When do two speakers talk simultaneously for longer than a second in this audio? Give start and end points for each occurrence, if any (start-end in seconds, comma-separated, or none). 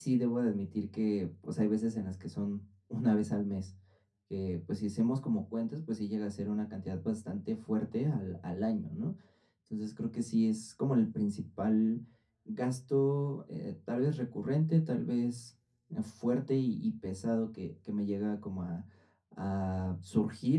none